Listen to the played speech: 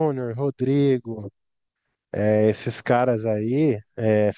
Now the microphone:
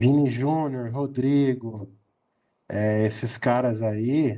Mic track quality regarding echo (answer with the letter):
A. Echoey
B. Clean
A